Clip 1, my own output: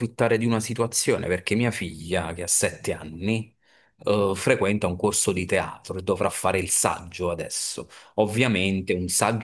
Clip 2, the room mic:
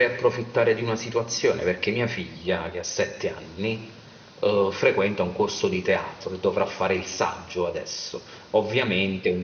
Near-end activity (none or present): none